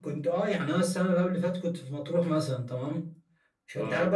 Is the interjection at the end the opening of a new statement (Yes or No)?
No